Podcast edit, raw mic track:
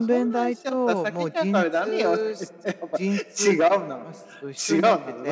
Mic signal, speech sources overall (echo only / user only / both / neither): both